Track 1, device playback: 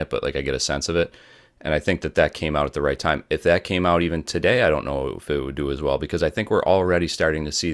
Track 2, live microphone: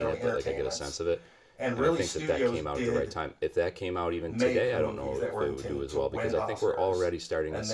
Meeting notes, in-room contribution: present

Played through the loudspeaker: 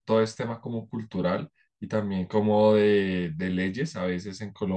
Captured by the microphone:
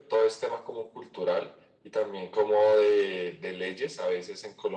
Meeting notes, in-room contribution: none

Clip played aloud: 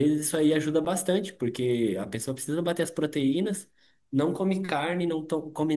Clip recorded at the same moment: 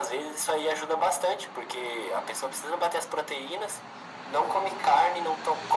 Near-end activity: none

